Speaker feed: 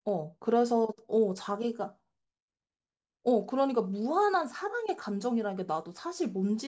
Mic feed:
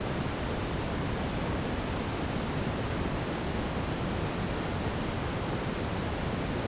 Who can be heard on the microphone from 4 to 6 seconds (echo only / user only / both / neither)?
neither